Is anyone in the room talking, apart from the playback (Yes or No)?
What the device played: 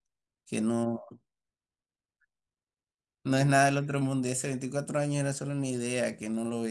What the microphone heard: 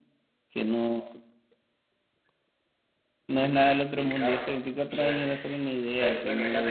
Yes